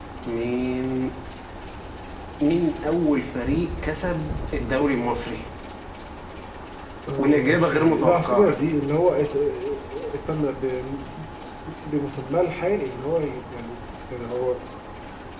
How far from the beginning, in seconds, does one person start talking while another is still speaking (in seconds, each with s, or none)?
7.2 s